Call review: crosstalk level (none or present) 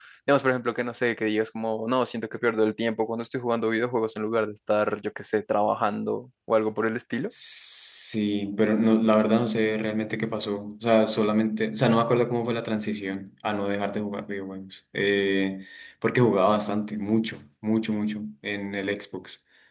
none